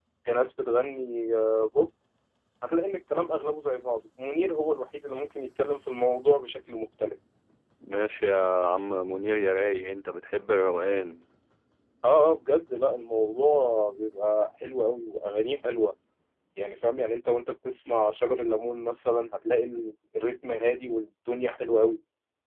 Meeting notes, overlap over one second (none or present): none